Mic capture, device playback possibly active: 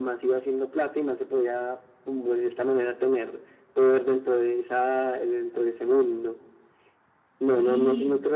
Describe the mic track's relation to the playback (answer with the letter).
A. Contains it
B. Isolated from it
A